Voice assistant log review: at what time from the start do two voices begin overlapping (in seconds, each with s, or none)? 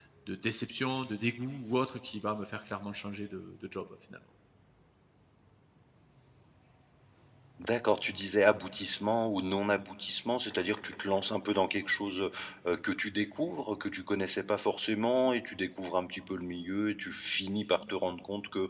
none